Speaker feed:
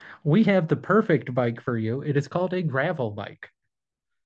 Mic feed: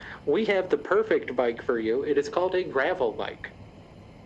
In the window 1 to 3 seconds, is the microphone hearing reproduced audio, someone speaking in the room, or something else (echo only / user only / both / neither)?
echo only